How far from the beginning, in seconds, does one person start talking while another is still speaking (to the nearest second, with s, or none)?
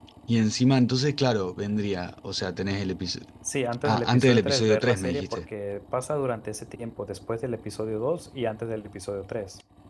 4 s